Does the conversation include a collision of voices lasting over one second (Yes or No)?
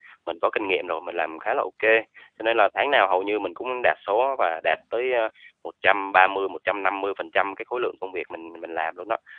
No